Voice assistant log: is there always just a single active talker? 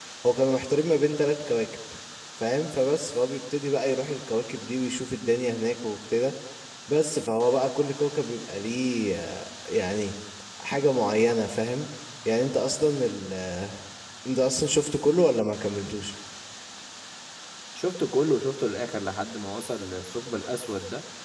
Yes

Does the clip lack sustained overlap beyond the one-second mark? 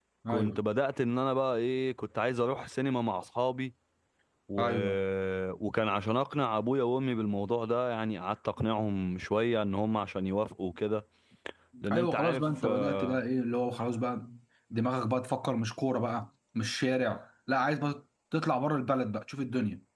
No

